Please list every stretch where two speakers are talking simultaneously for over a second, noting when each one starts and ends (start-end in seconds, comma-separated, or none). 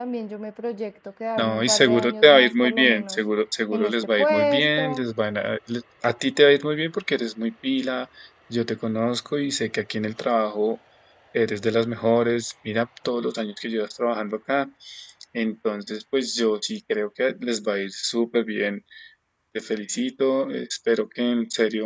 1.4-3.2, 3.7-5.1